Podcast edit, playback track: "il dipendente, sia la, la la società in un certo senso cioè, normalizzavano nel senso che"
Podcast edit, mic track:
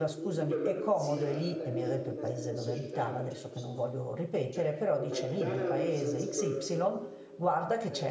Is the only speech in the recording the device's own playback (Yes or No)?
No